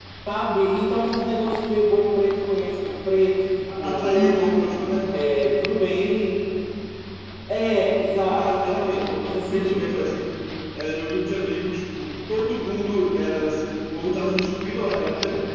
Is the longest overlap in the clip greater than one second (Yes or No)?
Yes